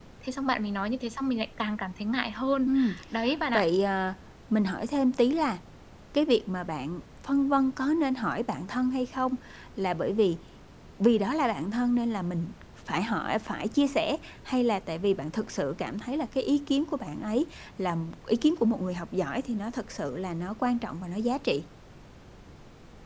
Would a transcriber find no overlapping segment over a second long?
Yes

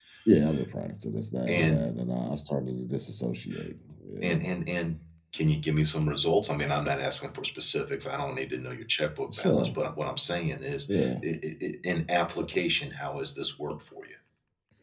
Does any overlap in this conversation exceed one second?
No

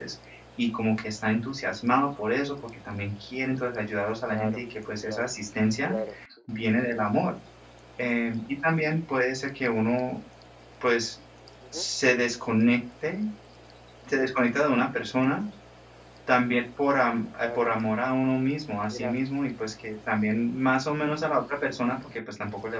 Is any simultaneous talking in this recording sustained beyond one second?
No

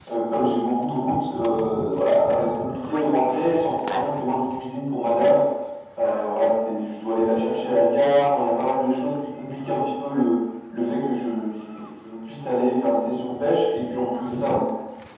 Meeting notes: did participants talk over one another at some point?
Yes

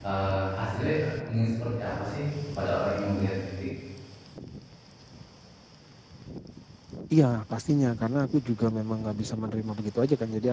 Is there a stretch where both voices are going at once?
No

